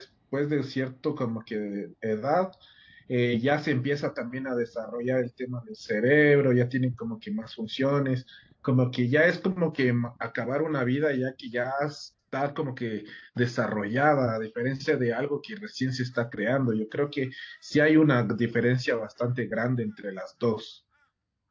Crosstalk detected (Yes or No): No